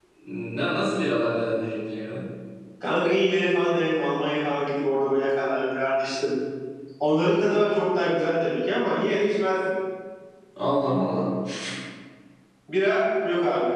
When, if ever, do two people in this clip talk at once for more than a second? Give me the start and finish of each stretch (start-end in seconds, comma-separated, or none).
none